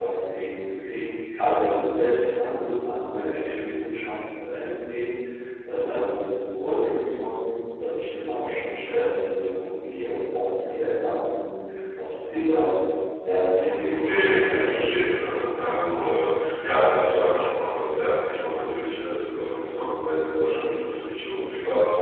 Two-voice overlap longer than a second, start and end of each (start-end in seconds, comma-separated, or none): 13.9-15.1